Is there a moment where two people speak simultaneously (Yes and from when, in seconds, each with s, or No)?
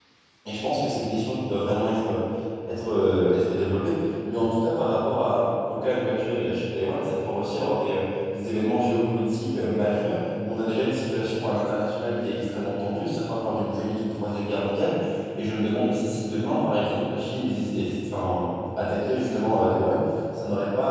No